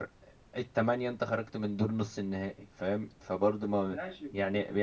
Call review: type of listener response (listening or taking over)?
taking over